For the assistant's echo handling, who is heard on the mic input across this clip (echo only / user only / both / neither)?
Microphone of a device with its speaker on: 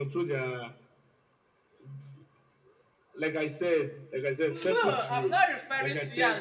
both